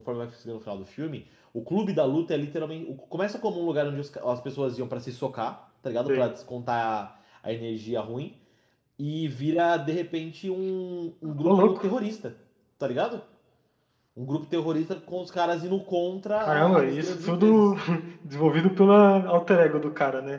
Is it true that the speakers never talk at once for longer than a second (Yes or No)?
No